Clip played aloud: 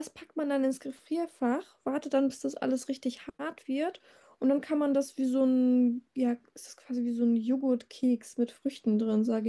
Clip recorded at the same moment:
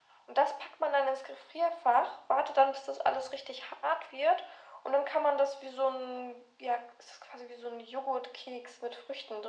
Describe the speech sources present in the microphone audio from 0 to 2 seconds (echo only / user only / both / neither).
echo only